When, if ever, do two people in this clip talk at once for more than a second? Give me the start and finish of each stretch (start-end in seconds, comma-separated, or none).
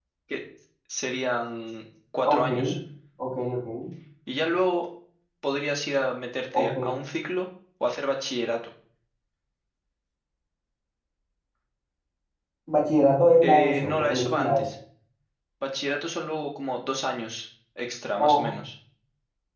13.4-14.7